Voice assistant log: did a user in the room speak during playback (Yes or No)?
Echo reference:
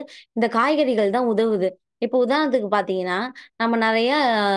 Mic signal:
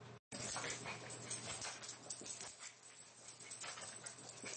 No